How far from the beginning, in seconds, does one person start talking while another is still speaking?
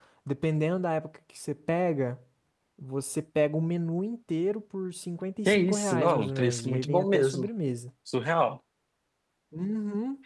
5 s

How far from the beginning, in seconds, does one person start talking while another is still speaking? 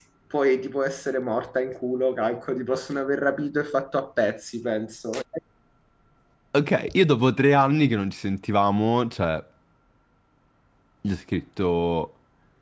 none

